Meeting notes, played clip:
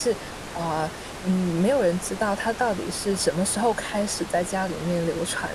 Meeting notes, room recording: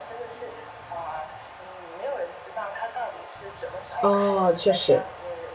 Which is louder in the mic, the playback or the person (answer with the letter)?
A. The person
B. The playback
A